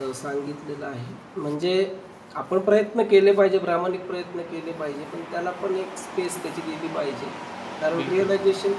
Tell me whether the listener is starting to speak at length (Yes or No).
No